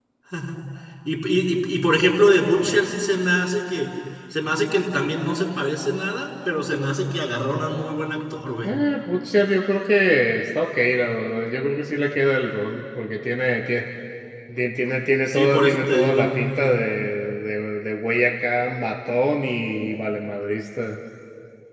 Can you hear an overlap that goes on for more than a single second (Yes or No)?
Yes